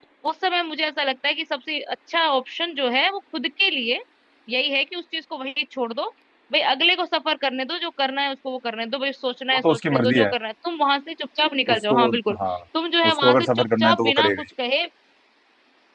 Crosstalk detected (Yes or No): Yes